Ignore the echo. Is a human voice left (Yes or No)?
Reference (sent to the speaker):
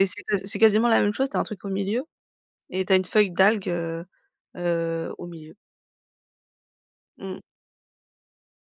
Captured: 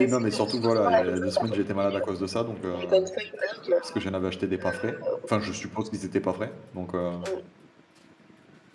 Yes